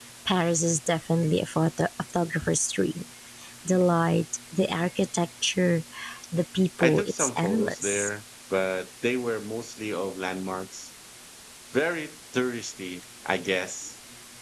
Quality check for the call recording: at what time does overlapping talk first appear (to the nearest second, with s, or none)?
7 s